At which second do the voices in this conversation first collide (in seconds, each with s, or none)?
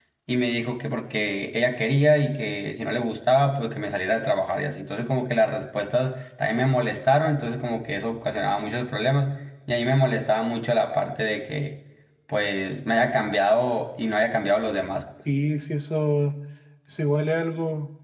none